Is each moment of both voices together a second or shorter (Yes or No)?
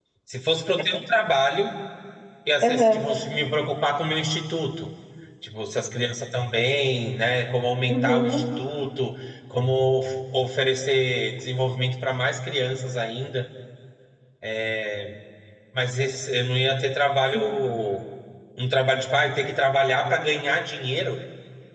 Yes